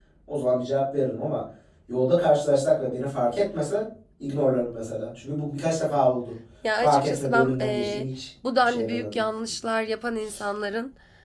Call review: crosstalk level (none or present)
present